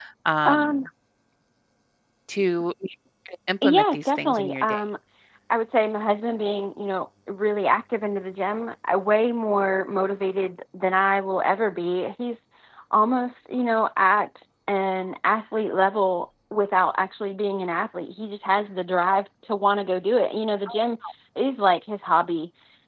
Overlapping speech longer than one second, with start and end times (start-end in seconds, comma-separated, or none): 3.6-4.8